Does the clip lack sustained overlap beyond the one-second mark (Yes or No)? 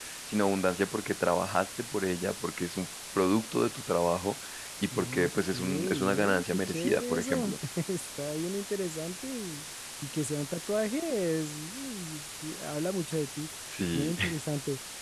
No